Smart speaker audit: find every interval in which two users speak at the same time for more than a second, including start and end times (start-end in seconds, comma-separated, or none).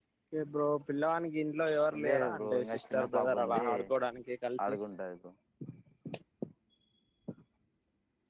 2.0-3.7